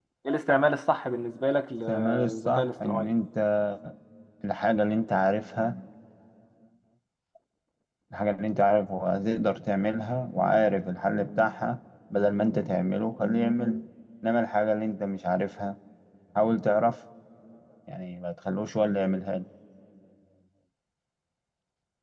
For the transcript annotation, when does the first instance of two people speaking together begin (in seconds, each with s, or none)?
1.9 s